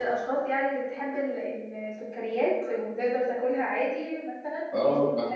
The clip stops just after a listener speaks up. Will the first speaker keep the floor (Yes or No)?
No